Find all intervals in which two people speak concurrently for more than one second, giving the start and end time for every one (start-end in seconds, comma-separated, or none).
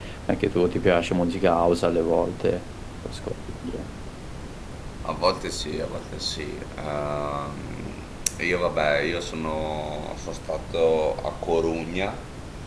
none